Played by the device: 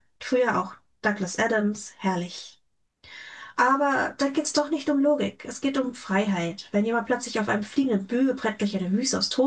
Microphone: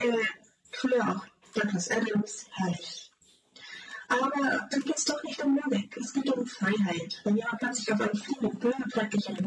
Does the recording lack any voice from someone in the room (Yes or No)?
Yes